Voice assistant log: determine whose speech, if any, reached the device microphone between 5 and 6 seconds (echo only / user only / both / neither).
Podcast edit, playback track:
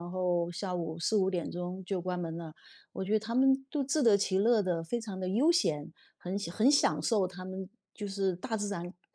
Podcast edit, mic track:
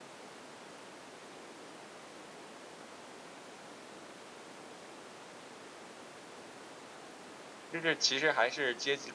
neither